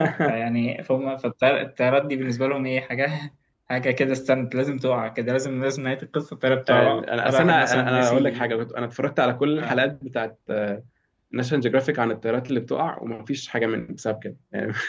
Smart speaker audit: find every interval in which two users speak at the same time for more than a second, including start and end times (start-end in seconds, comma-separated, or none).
6.7-8.4